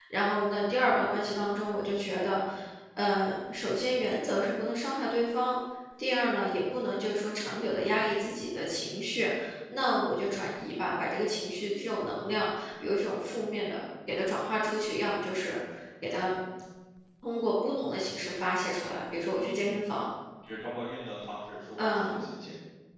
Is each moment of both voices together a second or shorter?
Yes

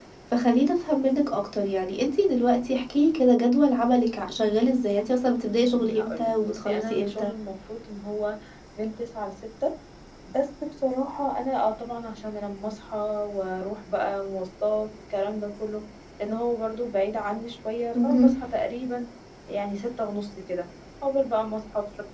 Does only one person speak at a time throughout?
No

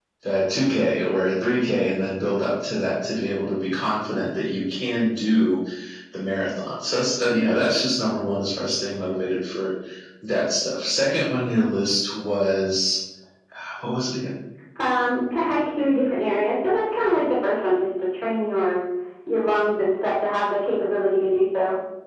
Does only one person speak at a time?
Yes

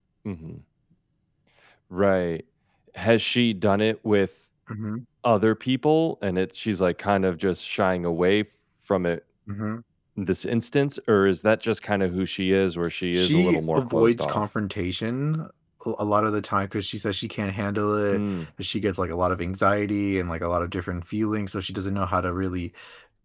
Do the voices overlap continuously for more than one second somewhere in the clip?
Yes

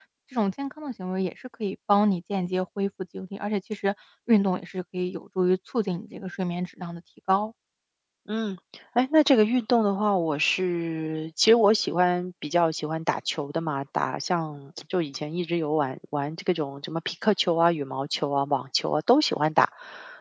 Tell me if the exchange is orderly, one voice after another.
Yes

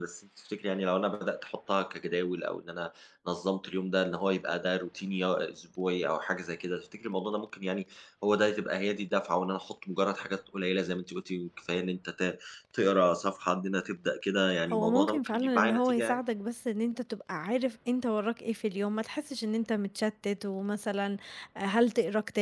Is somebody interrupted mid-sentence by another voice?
Yes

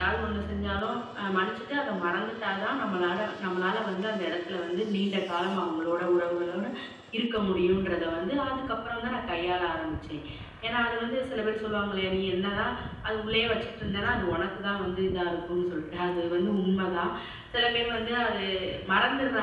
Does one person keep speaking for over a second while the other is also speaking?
No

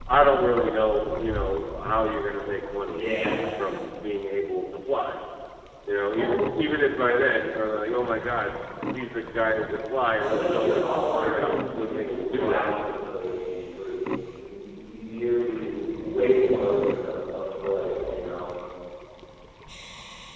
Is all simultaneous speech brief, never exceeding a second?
No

